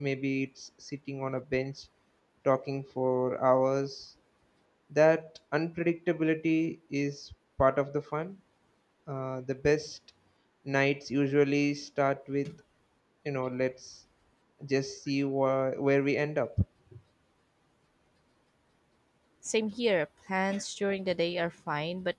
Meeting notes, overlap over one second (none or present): none